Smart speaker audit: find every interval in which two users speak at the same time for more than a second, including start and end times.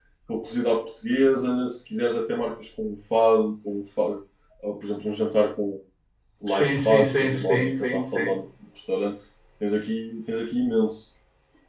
6.5-8.3

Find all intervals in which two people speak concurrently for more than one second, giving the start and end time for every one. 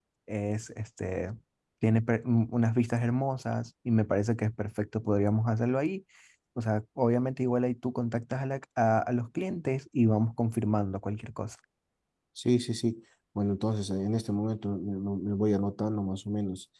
none

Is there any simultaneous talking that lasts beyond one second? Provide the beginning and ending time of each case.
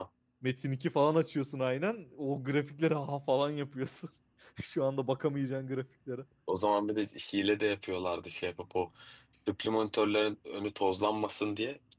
none

